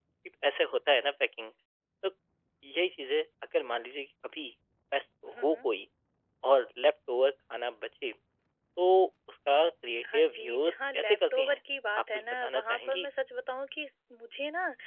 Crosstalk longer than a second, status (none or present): present